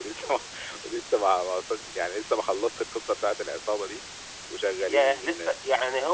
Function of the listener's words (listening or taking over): taking over